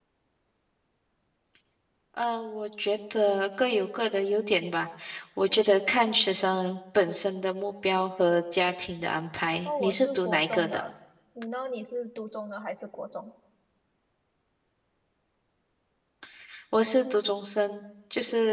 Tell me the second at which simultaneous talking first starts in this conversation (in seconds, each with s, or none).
9.6 s